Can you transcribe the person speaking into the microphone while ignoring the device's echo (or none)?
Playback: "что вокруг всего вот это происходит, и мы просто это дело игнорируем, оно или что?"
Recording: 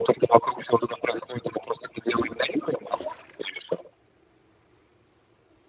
none